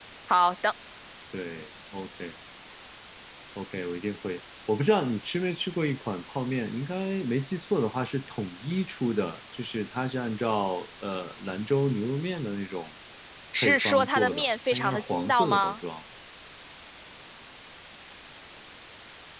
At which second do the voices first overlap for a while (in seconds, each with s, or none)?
13.6 s